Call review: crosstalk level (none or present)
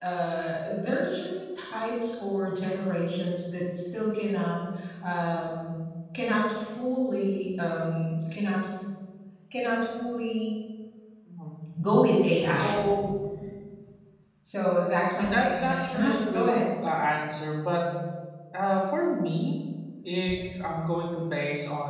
present